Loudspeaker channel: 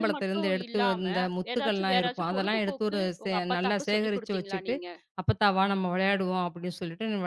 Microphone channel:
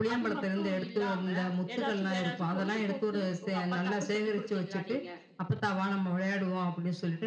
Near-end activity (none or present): none